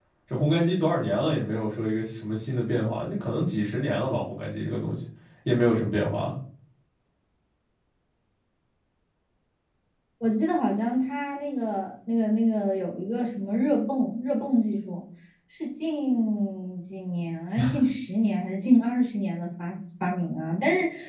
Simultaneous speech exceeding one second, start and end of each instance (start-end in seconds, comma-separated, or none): none